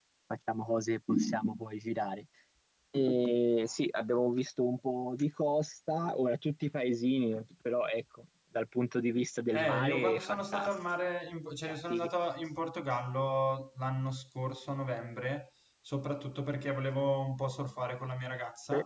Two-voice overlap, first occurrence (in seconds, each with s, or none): 9.5 s